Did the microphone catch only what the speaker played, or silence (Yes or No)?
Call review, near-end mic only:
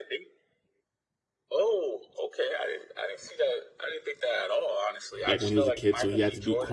No